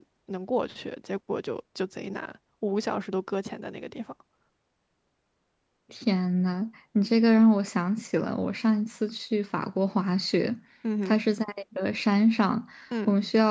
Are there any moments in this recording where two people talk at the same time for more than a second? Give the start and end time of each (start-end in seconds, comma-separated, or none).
none